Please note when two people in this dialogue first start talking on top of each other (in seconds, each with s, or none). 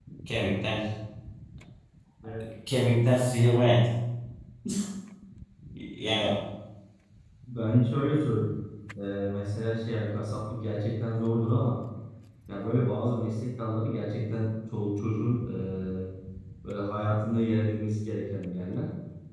none